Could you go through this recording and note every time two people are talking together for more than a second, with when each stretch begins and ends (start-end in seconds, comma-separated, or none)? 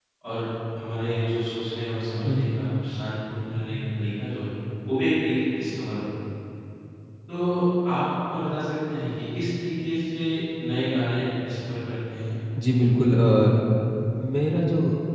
none